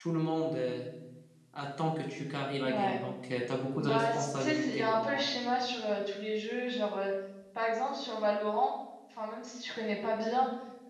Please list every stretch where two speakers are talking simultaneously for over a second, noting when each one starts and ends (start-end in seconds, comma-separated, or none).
3.8-5.2